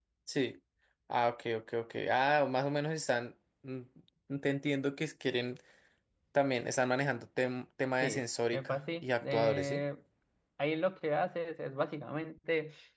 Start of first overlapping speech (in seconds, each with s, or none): 8.0 s